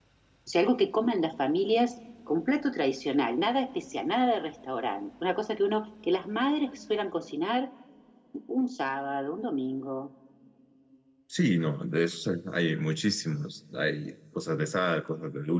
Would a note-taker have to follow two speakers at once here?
No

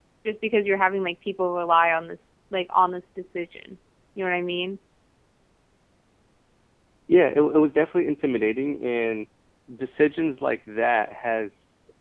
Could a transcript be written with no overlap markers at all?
Yes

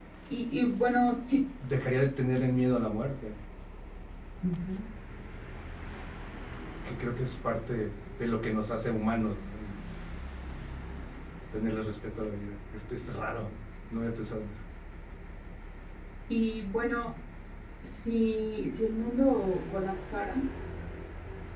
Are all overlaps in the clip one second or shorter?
Yes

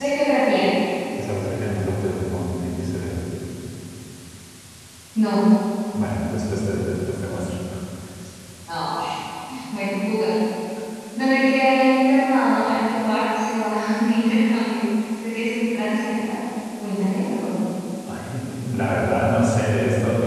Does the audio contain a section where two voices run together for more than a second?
No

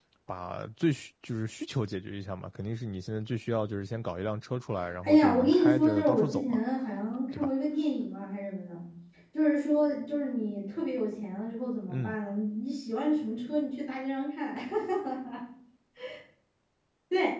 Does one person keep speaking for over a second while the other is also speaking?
Yes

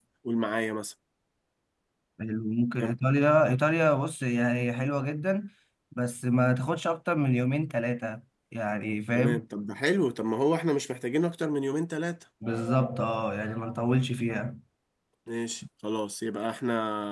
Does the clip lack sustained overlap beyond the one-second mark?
Yes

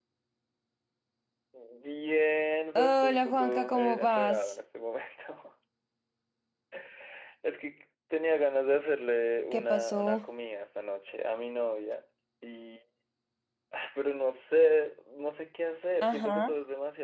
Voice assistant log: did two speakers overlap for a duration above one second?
Yes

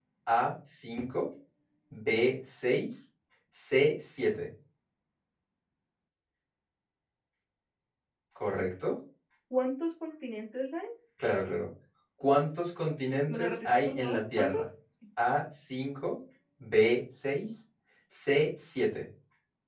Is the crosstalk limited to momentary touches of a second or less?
No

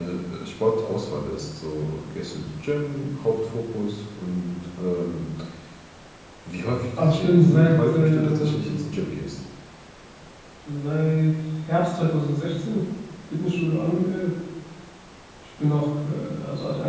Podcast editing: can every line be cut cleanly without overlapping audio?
No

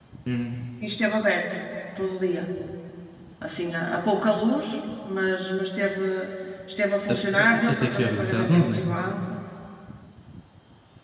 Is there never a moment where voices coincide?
No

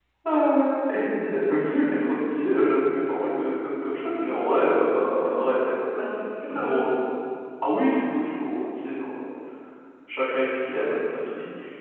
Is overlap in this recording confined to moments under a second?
Yes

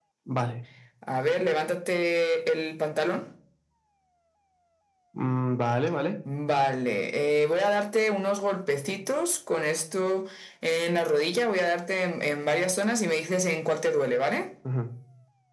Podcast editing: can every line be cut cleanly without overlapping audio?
Yes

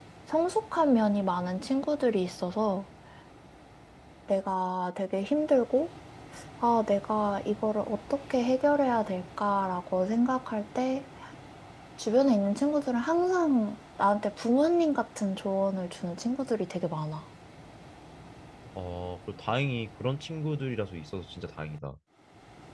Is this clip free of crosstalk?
Yes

